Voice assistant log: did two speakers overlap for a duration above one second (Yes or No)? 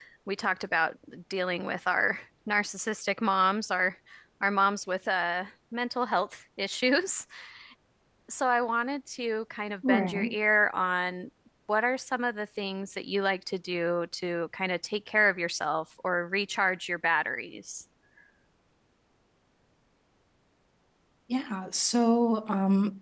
No